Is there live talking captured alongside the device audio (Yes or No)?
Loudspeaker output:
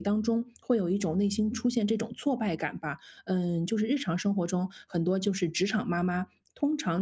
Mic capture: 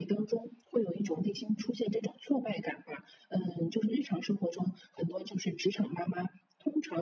No